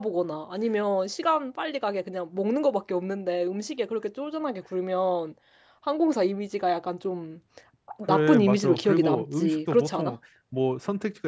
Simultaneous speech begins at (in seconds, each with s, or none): 8.1 s